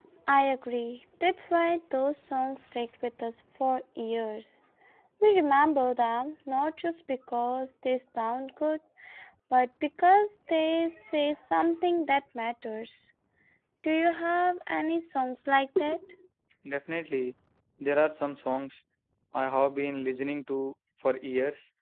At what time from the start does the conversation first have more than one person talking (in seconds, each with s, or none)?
none